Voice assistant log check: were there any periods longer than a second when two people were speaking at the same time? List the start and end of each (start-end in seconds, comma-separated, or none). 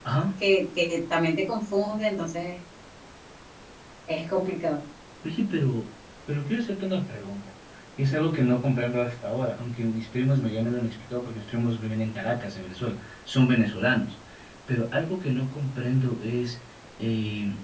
none